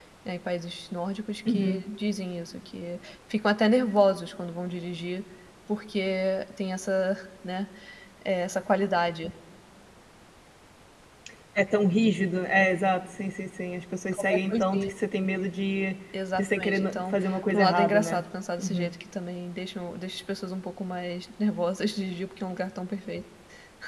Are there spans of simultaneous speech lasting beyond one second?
Yes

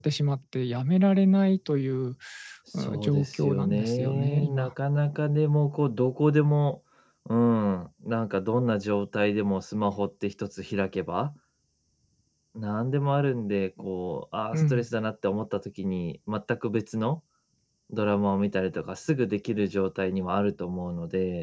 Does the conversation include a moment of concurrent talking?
Yes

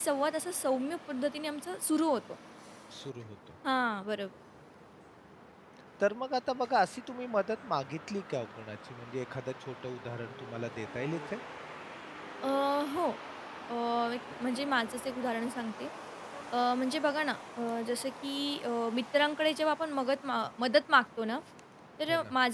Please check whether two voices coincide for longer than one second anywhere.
No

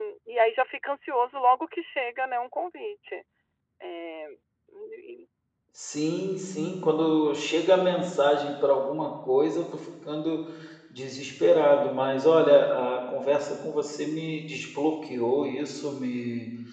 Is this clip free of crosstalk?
Yes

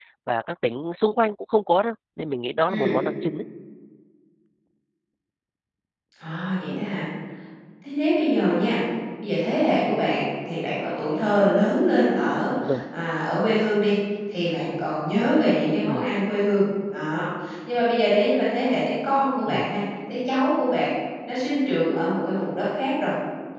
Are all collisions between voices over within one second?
Yes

